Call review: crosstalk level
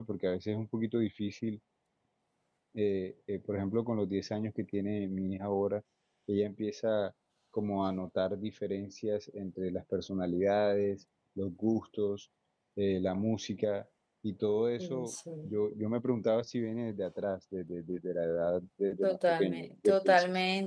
present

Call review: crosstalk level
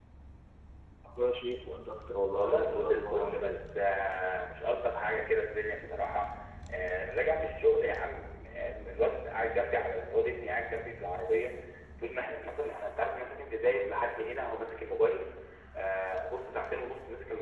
present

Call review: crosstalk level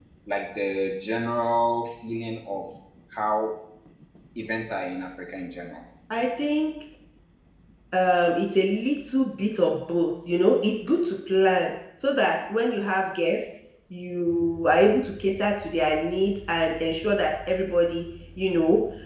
none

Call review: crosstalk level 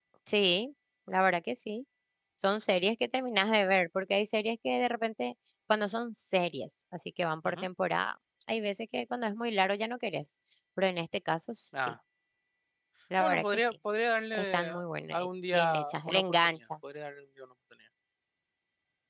present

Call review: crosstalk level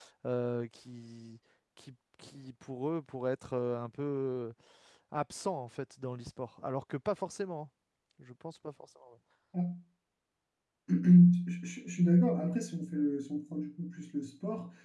none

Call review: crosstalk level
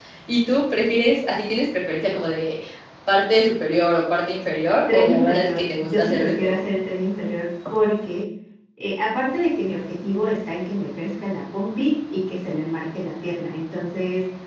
present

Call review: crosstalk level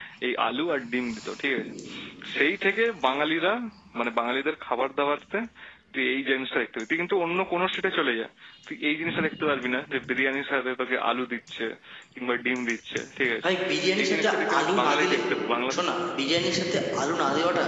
present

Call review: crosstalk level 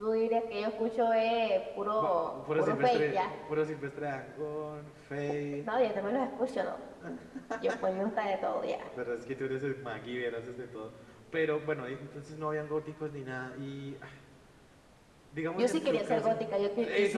present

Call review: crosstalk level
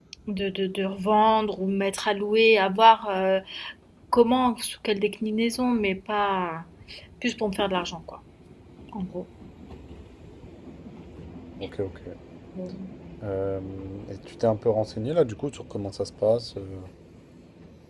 none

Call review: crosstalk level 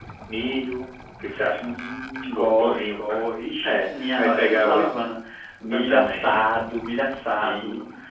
present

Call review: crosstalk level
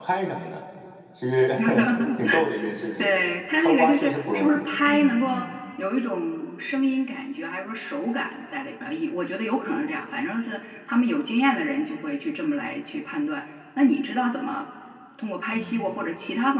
present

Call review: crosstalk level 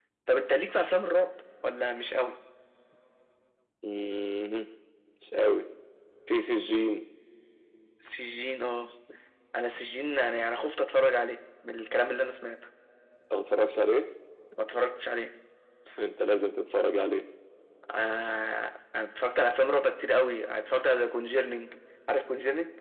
none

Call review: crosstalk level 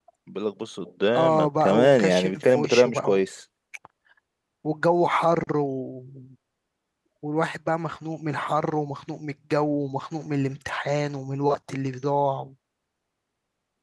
present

